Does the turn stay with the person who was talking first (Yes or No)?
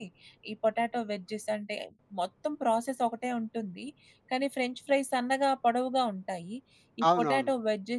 Yes